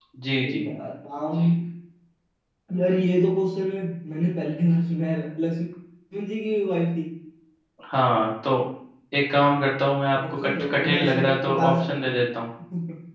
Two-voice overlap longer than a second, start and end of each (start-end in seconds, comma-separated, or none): 10.3-11.8